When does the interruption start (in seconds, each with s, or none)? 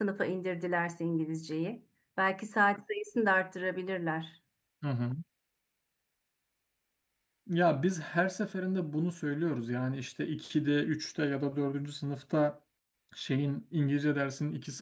none